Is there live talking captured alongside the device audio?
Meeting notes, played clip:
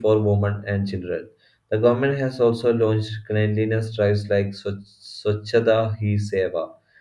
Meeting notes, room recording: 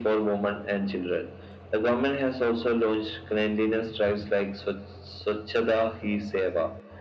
No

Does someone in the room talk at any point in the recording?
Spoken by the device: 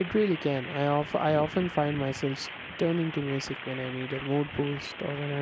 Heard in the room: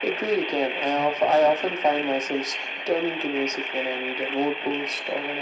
No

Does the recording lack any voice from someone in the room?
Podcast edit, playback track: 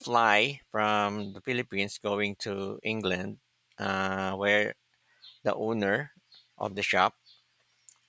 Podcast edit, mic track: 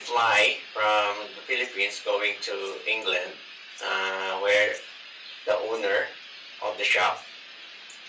Yes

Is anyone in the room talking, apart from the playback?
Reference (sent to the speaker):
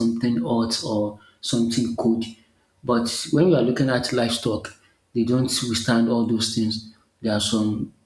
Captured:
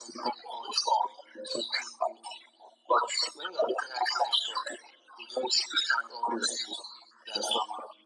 No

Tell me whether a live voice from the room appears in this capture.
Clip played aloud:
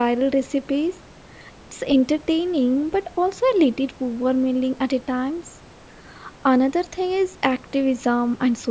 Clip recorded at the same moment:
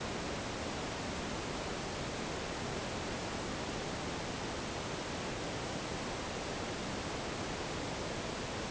No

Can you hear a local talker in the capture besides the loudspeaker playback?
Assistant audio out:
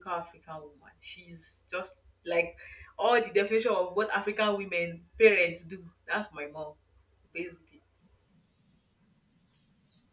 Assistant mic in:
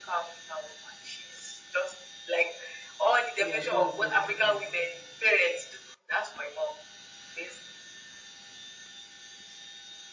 Yes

